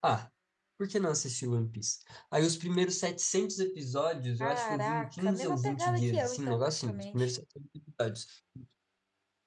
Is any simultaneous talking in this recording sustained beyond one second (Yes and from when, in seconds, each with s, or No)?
Yes, from 4.4 s